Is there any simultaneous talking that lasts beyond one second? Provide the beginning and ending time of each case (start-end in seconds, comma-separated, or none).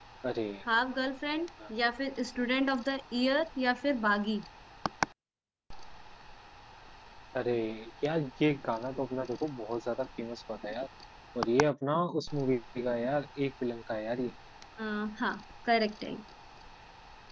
none